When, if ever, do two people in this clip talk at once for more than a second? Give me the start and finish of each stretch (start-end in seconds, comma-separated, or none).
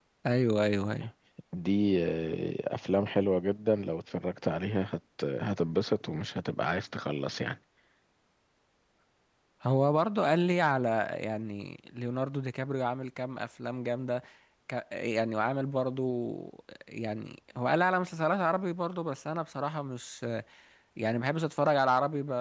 none